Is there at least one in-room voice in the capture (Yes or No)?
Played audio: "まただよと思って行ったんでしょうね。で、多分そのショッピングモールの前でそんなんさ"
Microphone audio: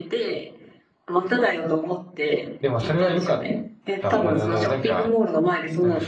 Yes